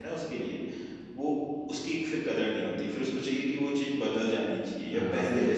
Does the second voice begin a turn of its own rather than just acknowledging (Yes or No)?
Yes